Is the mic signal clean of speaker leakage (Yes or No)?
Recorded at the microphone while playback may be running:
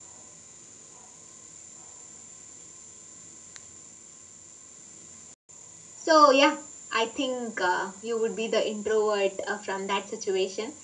Yes